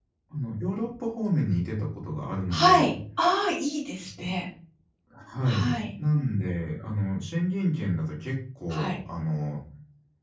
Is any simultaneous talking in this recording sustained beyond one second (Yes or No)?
No